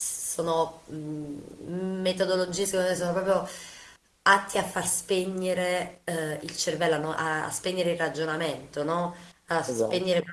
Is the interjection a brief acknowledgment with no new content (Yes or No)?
Yes